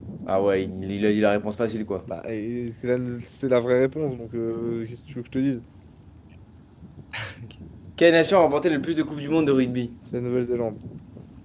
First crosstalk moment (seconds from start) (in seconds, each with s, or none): none